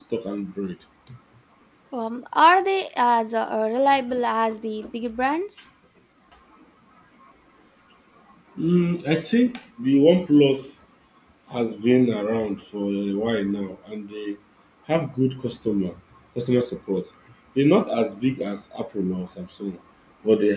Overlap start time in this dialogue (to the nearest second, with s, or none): none